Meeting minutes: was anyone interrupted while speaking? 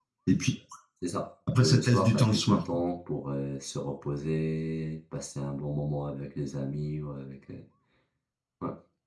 Yes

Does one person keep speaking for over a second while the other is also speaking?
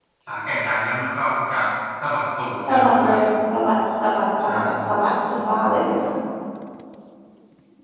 No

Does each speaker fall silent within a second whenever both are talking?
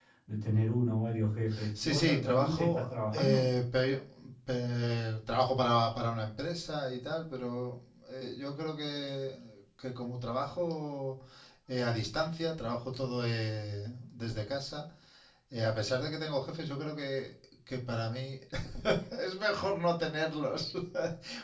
No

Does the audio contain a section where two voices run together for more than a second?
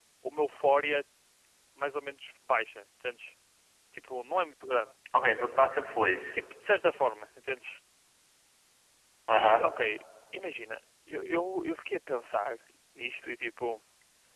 No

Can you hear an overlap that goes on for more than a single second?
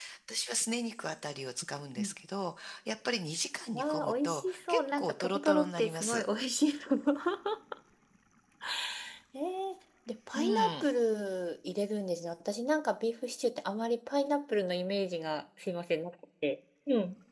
Yes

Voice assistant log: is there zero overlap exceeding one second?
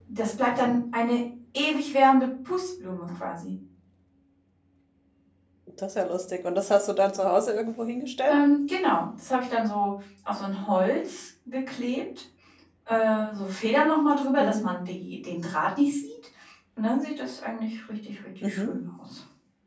Yes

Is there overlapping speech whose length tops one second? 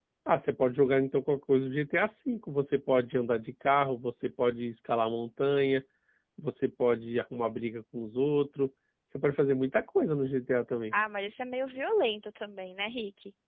No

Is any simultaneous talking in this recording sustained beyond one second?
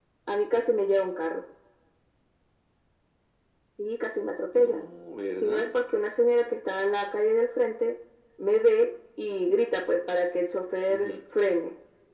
No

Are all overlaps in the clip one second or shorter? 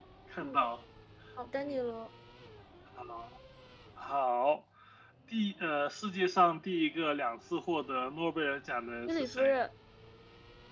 Yes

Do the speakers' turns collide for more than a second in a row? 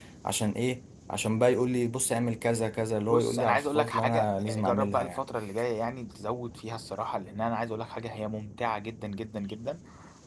Yes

